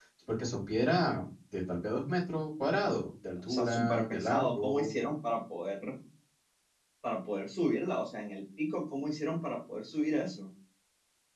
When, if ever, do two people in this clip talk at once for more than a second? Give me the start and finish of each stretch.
3.5-4.9

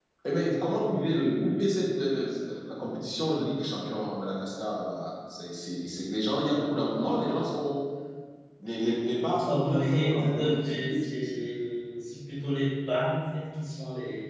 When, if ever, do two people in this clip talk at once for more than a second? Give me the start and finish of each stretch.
9.4-11.5

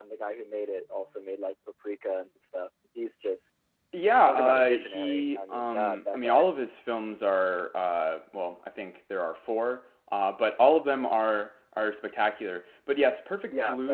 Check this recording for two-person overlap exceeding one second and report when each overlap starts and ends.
4.2-6.4

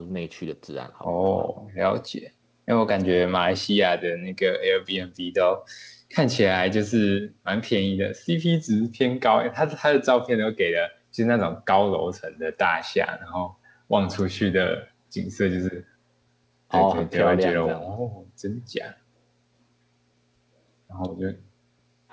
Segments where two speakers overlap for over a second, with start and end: 16.7-18.0

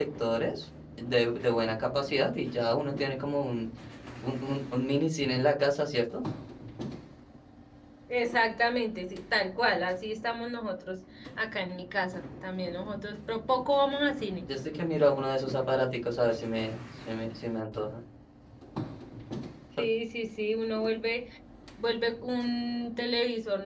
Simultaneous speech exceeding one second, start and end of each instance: none

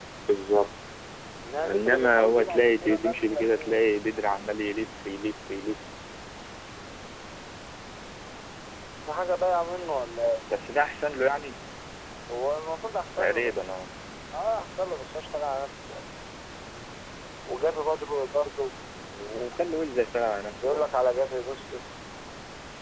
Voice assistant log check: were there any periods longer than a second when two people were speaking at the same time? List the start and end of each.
1.7-3.9

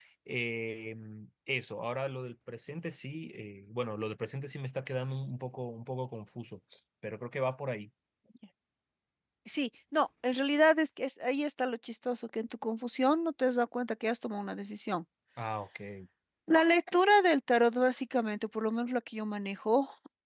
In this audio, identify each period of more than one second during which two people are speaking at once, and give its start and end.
none

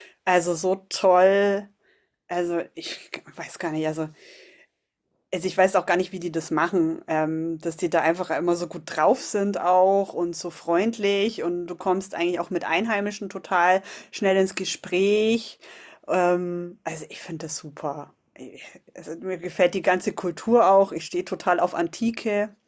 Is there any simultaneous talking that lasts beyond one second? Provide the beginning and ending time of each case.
none

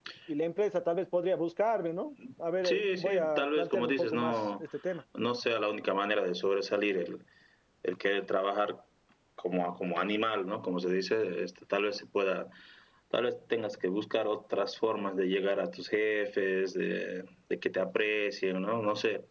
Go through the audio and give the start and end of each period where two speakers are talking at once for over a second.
2.6-4.6

